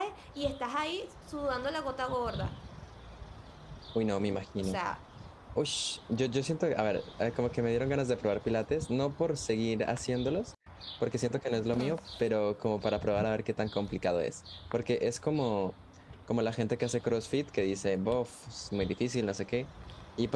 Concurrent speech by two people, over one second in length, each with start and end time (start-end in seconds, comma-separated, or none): none